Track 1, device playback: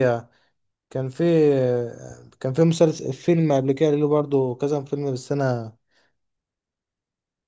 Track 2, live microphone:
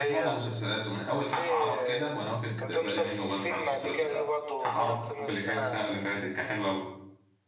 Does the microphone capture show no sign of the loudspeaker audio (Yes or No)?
No